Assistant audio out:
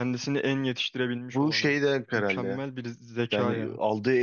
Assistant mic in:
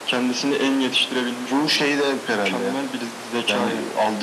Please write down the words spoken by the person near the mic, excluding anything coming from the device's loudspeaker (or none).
none